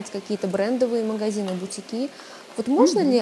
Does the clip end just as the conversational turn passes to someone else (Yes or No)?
No